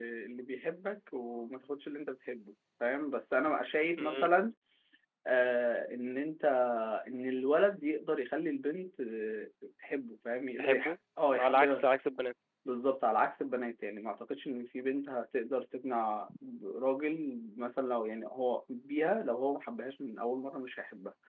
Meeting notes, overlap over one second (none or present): none